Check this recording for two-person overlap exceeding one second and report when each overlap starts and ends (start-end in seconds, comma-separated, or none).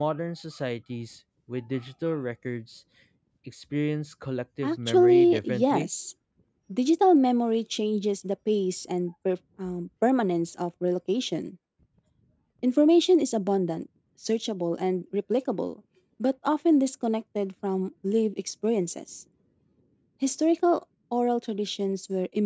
4.6-5.9